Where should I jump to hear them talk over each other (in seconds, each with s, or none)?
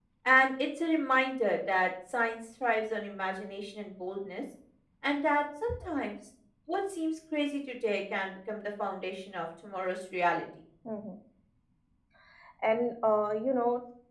none